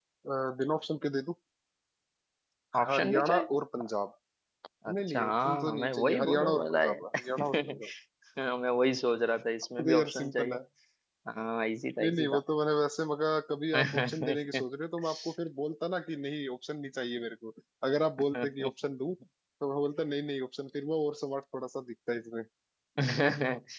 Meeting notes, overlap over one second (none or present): present